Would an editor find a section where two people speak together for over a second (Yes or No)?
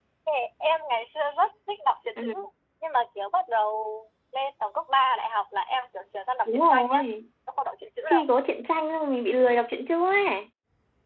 No